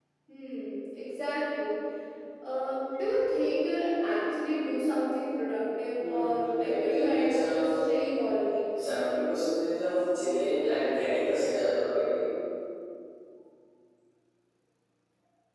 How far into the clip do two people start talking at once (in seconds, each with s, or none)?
6.0 s